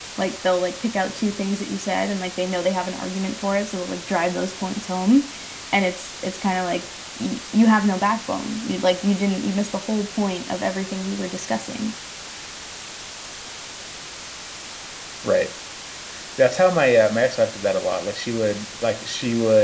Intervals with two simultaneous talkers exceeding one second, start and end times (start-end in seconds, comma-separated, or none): none